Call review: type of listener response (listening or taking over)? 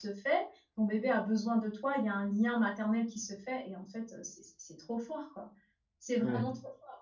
listening